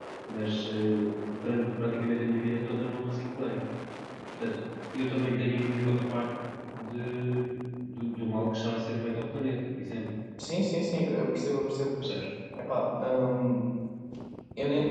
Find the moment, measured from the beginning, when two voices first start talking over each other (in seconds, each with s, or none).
none